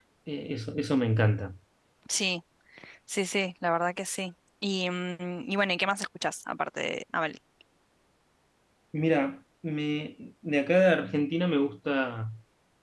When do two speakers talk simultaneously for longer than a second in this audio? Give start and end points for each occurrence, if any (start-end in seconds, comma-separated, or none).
none